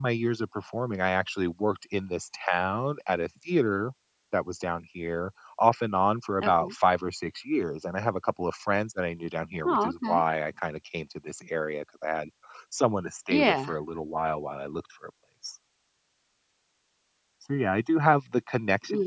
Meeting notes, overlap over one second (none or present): none